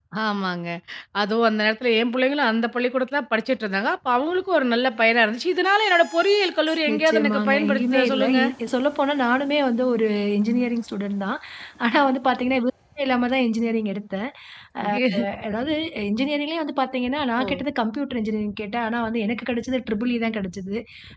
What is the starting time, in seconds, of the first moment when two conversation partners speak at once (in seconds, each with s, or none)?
6.9 s